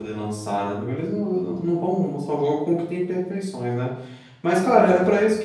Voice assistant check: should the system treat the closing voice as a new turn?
No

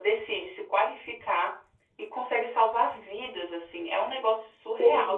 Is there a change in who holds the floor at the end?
No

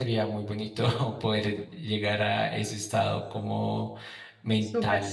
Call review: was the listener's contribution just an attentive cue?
No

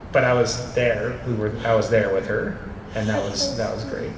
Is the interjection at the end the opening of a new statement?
Yes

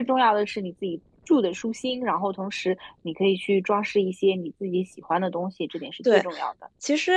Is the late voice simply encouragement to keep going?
No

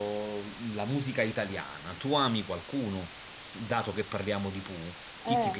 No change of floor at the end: No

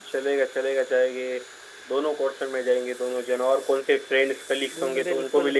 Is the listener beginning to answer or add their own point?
Yes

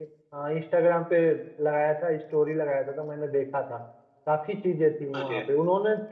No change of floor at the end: Yes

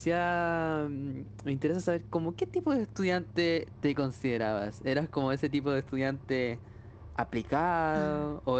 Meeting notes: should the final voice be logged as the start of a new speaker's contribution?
No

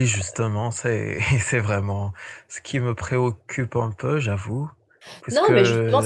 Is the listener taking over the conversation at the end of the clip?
Yes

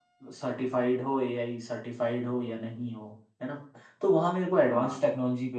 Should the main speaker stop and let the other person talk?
No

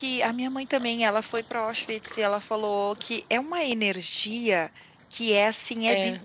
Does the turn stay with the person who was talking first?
Yes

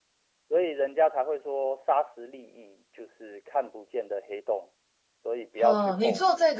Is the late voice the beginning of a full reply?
Yes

